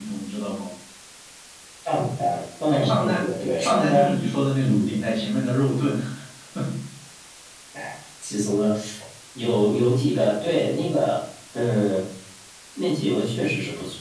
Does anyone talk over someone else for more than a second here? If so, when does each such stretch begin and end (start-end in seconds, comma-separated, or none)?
none